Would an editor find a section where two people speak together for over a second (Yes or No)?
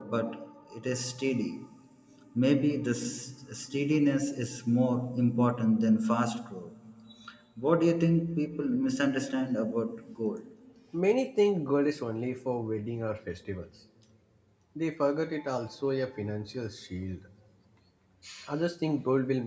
No